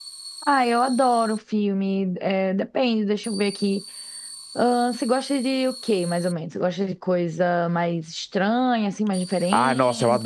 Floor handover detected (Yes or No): Yes